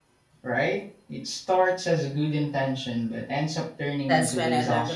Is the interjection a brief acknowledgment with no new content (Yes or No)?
No